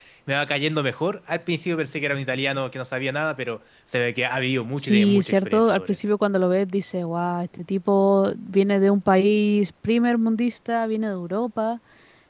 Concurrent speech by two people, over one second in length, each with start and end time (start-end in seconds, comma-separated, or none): 4.8-6.0